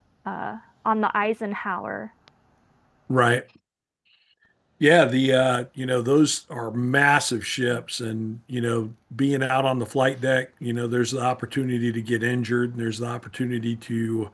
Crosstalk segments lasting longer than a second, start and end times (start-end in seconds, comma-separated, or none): none